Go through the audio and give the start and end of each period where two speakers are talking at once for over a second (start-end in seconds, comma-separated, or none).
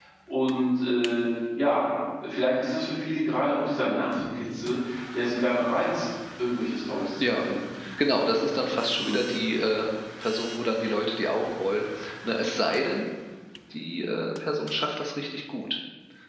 none